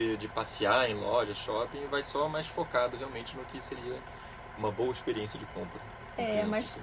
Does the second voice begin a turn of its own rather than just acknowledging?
Yes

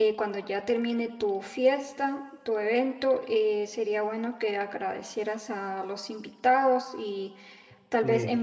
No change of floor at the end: Yes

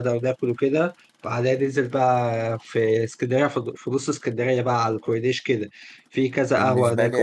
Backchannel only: Yes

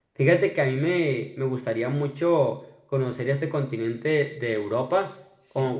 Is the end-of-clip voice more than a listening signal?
No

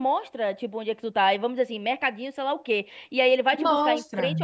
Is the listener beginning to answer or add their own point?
No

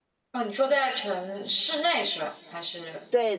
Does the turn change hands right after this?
Yes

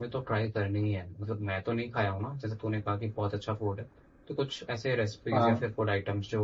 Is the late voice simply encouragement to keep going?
Yes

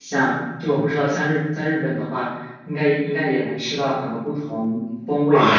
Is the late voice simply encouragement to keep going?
No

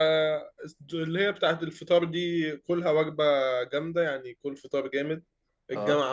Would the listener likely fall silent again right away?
Yes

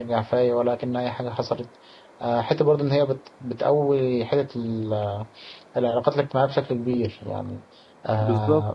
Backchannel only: Yes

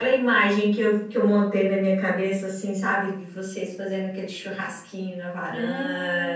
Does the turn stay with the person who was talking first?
No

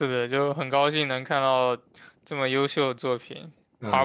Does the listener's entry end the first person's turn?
No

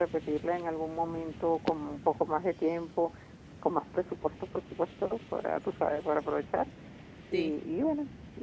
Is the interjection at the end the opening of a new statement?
No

